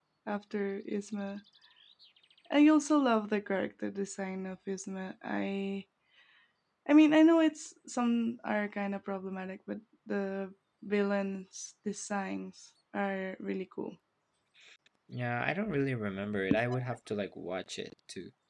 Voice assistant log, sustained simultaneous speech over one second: none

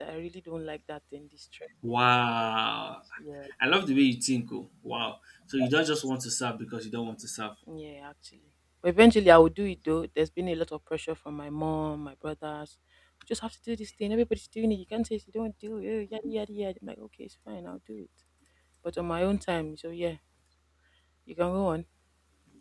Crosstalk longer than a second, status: none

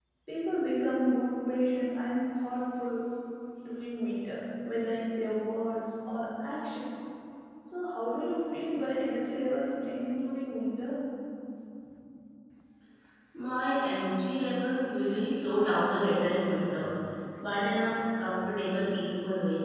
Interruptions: none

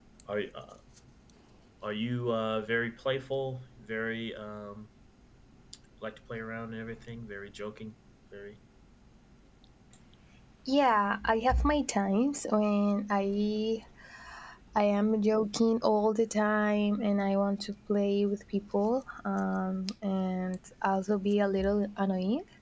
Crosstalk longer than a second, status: none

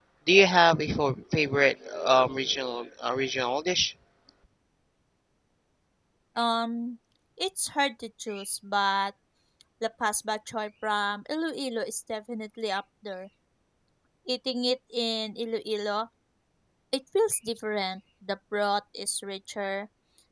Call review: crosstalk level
none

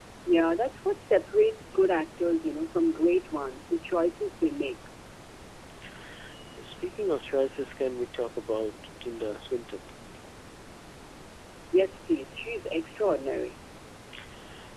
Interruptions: none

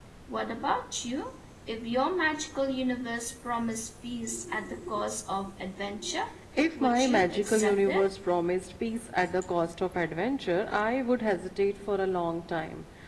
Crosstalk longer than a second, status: present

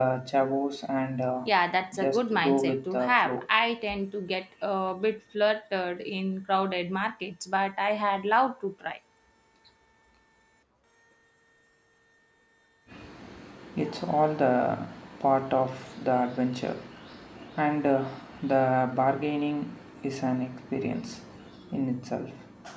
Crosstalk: present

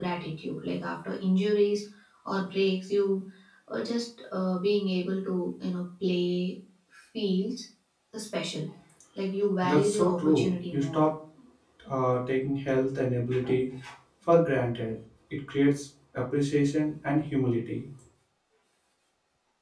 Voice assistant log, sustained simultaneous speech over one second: present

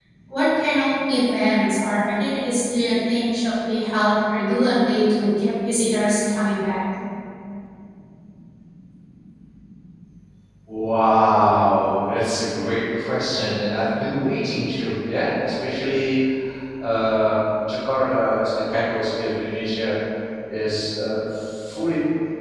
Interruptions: none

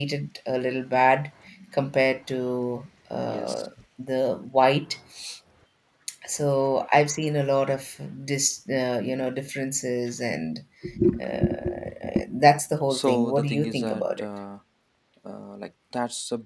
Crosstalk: present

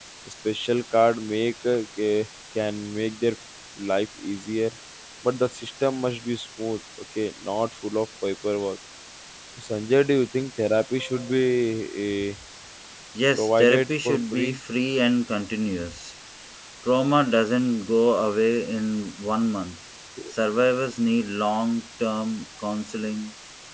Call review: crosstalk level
present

